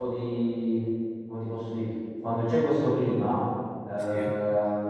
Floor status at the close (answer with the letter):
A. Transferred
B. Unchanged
B